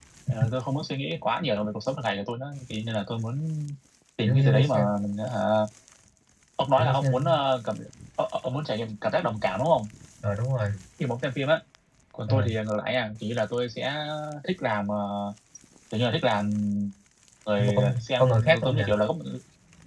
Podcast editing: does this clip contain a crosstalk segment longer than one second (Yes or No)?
Yes